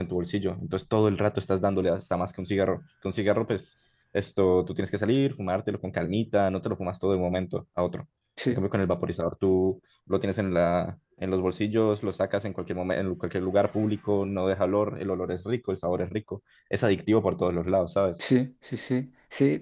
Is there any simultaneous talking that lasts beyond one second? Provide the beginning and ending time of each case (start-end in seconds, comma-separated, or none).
none